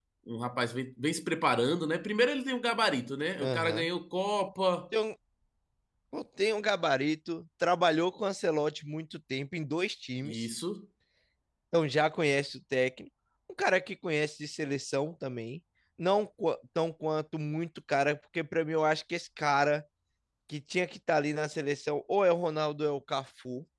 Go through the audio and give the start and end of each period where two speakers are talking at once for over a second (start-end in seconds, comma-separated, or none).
none